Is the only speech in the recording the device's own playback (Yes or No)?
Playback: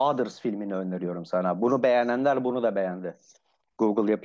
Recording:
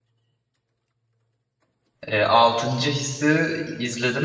No